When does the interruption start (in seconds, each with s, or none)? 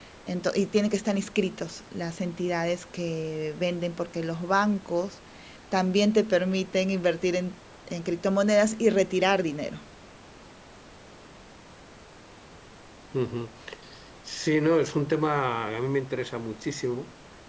none